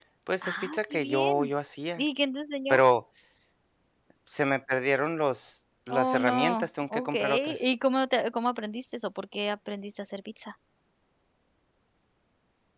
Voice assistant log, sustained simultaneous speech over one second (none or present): present